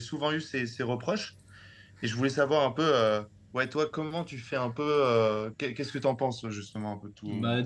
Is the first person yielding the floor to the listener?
Yes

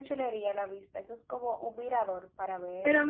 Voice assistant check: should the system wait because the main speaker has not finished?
No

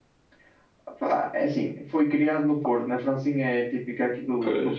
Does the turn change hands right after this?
No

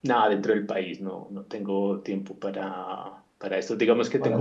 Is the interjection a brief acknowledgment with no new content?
Yes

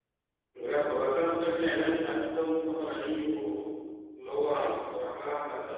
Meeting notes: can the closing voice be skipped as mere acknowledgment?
Yes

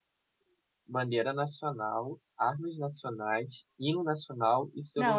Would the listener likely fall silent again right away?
No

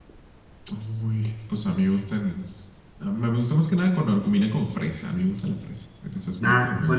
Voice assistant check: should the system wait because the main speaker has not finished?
No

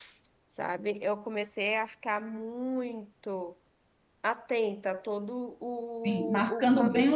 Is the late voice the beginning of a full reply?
Yes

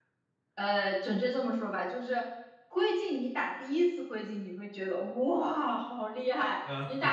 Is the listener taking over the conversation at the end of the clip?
No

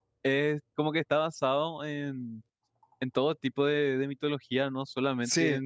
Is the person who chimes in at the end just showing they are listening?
Yes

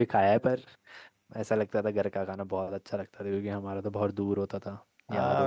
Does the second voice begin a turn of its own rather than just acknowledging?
Yes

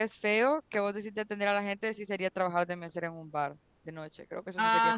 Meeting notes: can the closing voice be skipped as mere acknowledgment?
No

